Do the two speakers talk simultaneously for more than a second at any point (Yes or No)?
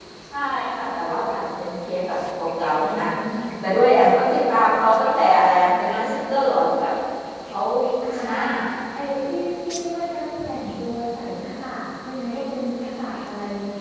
No